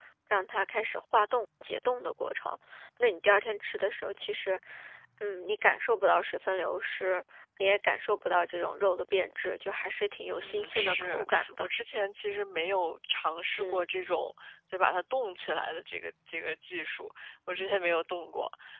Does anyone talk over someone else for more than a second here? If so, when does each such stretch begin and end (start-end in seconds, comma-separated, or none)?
10.3-11.7